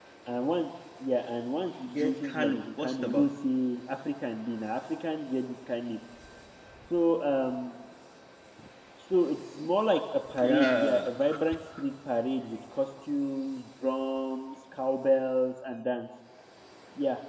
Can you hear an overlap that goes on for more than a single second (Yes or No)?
Yes